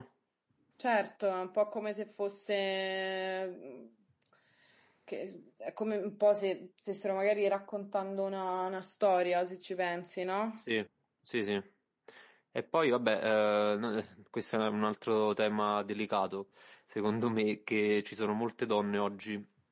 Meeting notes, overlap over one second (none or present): none